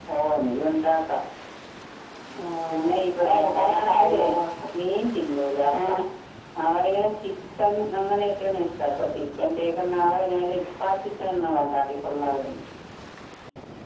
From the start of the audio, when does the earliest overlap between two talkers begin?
2.7 s

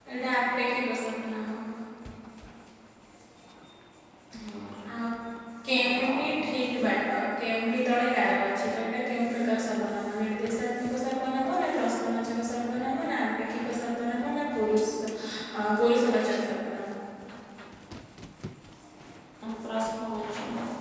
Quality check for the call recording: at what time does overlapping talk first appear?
5.7 s

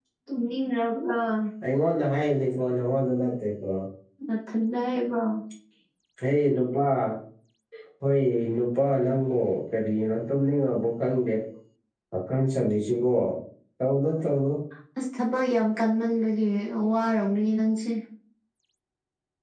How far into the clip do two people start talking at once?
none

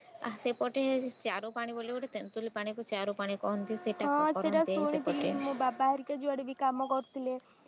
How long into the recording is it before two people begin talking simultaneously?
4.0 s

